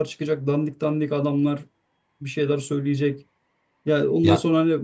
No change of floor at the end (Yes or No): Yes